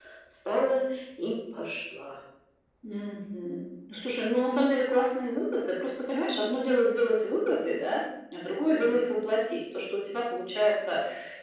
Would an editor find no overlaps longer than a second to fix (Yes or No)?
Yes